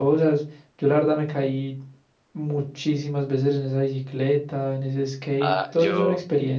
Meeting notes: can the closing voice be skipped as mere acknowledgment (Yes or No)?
No